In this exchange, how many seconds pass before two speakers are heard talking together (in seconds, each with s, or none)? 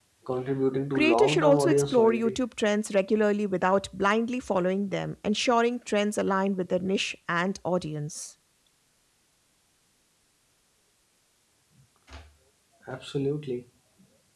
0.9 s